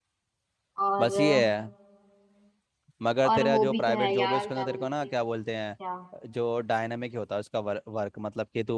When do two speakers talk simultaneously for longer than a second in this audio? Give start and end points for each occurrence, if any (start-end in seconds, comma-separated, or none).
3.3-5.1